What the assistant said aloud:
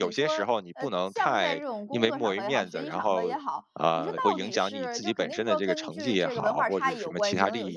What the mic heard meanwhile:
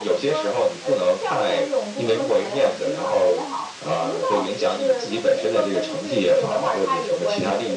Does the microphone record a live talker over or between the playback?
No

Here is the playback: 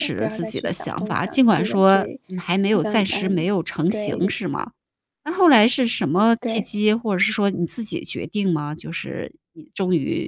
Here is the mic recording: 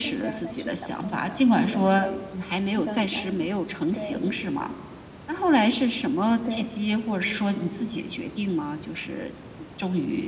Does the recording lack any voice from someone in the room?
Yes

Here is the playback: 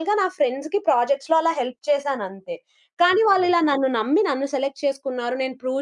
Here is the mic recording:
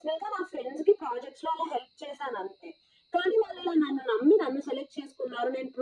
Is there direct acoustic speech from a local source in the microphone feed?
No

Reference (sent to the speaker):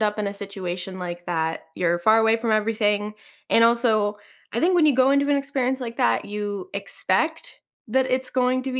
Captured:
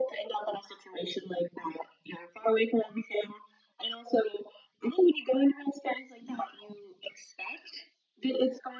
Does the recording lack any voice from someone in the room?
Yes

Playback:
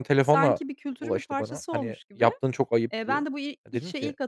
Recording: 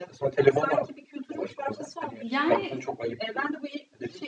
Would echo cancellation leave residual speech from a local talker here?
Yes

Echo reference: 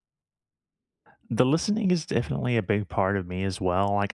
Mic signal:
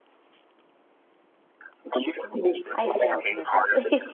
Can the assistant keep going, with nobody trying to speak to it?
No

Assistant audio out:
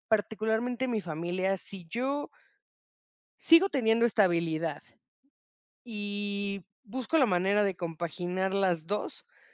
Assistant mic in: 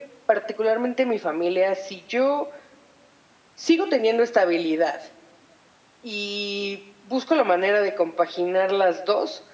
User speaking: No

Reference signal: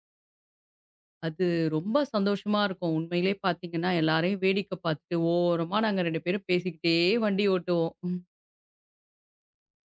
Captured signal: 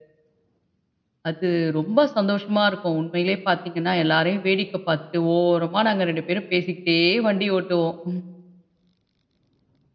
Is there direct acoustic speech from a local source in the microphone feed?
No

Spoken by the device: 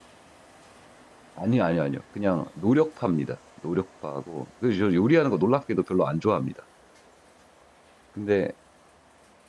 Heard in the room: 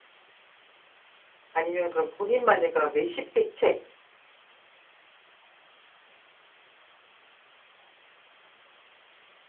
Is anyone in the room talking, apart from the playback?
Yes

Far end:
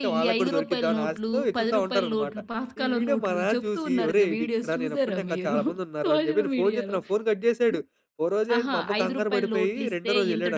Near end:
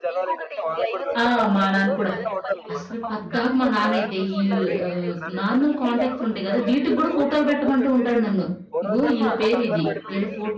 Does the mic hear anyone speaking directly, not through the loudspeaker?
Yes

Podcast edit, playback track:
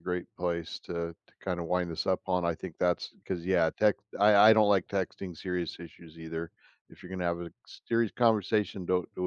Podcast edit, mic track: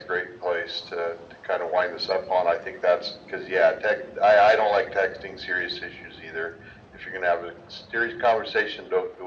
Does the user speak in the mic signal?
No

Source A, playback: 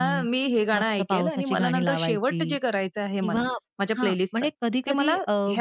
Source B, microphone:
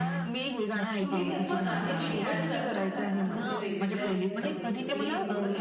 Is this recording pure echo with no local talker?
No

